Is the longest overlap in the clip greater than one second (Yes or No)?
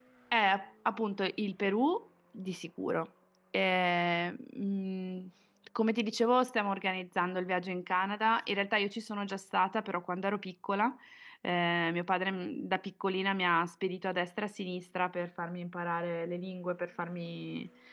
No